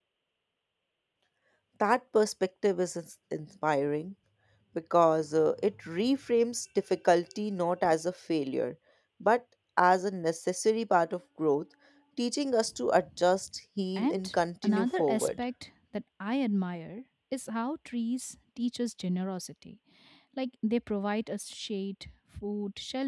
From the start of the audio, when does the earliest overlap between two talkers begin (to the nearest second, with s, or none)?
14 s